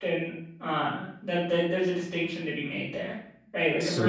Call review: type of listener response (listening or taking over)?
listening